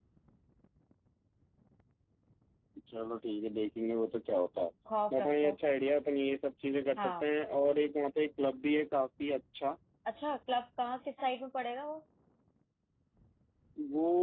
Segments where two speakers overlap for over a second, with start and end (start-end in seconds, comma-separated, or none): none